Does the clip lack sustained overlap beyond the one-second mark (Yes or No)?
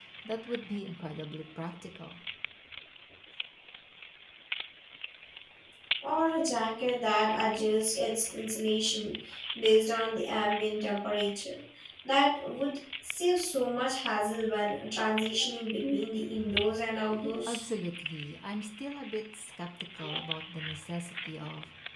Yes